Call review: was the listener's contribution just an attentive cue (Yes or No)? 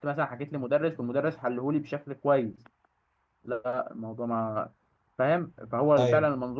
Yes